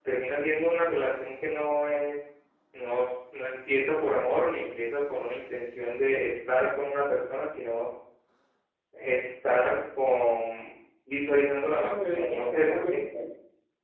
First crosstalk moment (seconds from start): 11.8 s

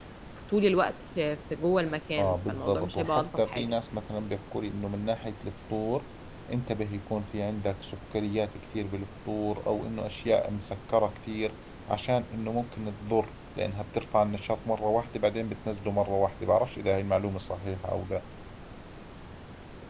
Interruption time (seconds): 2.2 s

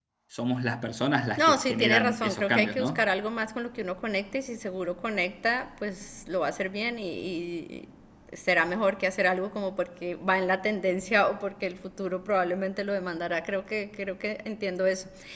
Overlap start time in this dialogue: 1.4 s

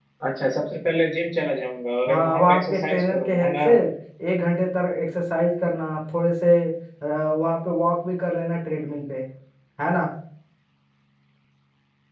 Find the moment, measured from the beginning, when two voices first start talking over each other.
2.1 s

